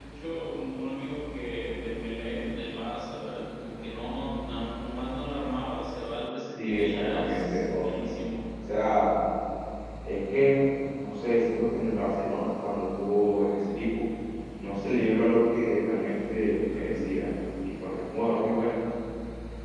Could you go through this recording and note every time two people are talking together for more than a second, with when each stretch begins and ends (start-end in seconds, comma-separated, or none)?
6.6-7.8